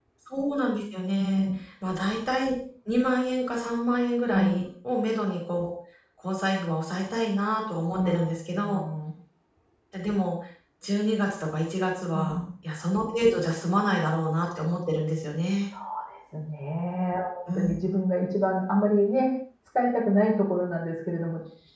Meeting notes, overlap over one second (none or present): none